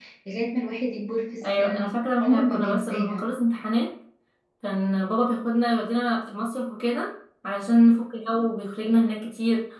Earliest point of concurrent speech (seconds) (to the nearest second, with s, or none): 1 s